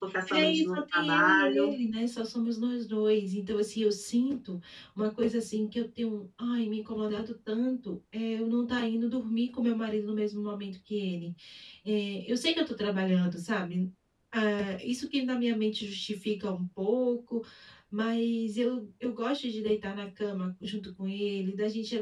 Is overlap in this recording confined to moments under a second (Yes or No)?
No